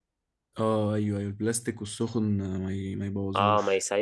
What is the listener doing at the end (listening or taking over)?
taking over